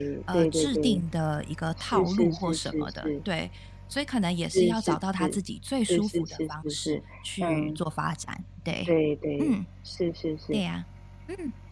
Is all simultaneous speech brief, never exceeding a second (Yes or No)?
No